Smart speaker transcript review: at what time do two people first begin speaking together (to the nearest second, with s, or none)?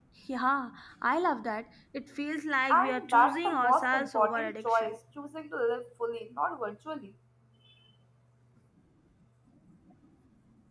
3 s